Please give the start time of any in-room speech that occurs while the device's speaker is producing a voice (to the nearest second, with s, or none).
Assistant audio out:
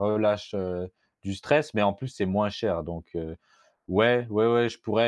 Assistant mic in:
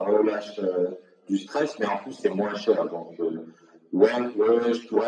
none